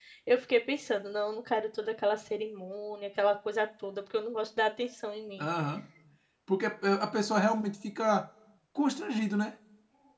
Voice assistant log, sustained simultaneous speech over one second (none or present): none